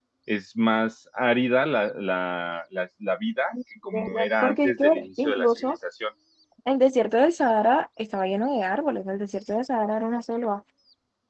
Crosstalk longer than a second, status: present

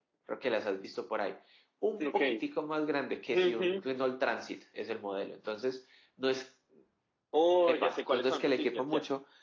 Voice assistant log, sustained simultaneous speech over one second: present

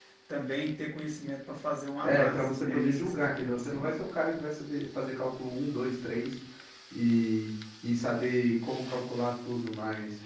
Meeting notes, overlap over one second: present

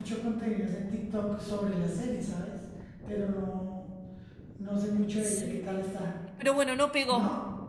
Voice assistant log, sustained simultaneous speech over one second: none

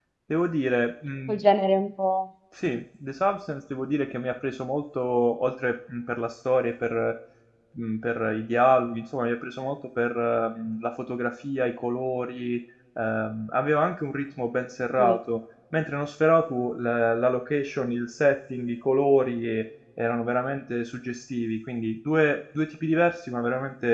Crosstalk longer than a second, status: none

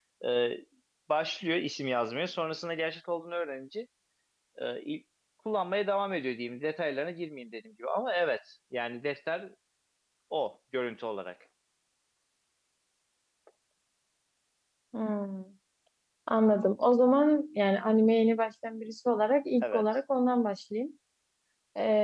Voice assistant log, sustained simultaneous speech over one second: none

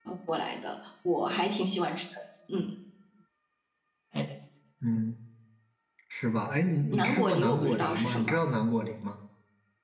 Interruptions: present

